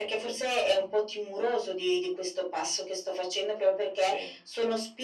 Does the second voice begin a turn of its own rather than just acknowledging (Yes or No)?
No